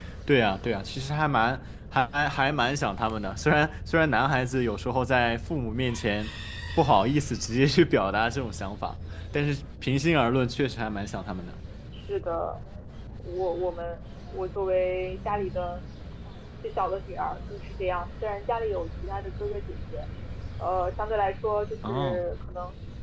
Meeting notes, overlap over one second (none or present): none